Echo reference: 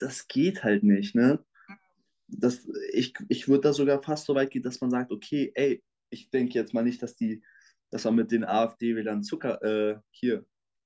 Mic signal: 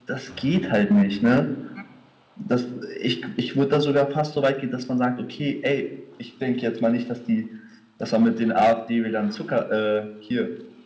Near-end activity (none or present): none